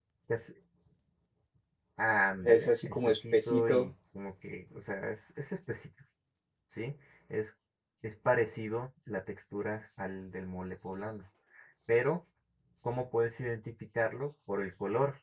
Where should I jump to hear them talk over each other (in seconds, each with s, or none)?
2.4 s